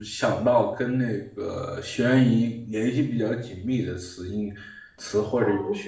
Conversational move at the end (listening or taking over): listening